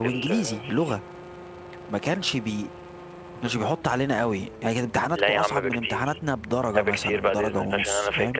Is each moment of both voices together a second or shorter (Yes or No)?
No